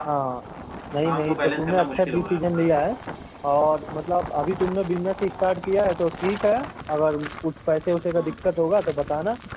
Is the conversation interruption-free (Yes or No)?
No